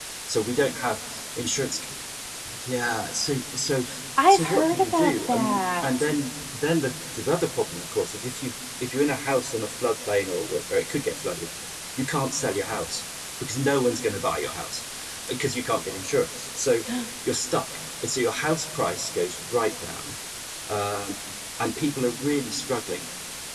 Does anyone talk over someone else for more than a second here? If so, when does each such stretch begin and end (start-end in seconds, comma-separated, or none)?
4.3-6.1